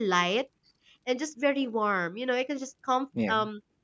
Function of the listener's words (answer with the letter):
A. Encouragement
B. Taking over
A